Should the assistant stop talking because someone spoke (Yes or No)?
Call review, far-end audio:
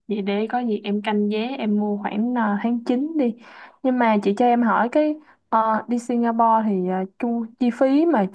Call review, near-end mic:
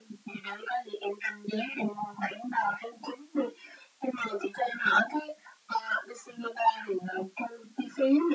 No